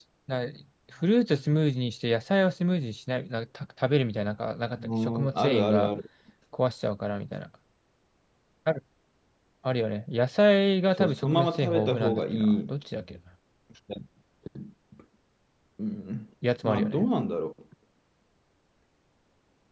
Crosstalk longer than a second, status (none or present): present